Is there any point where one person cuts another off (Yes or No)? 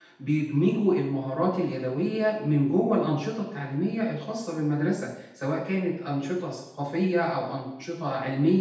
No